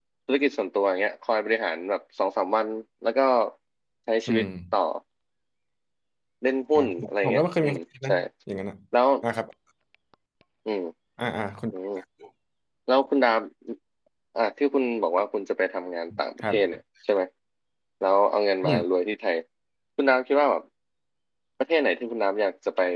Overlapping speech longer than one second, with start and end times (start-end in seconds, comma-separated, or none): 6.8-8.1